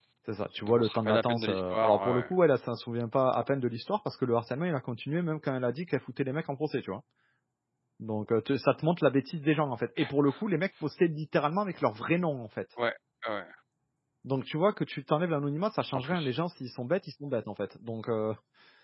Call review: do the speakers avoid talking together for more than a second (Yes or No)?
No